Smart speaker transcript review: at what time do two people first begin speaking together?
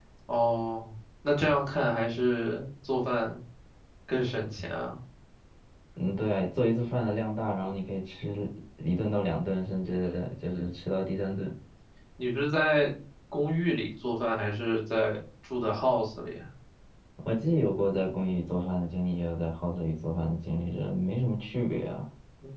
none

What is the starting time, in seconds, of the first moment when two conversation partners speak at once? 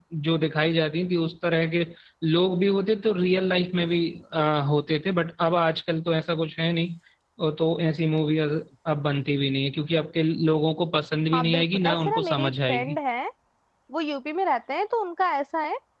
11 s

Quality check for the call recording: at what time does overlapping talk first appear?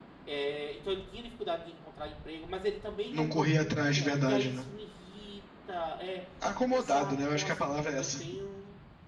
3 s

